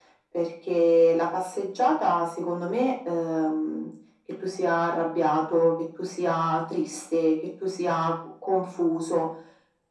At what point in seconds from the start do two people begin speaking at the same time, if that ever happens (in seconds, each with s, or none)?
none